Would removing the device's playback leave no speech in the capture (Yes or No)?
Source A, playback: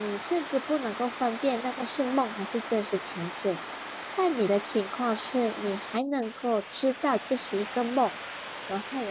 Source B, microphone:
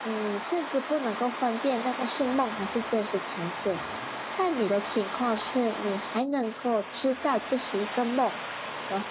Yes